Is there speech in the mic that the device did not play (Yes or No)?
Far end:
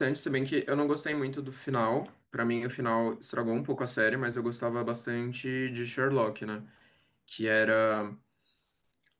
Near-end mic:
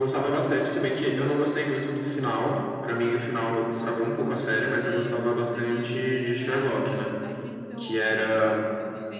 Yes